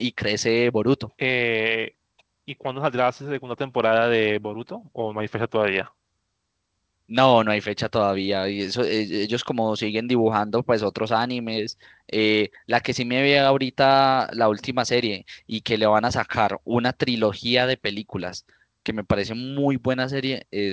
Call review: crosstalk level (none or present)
none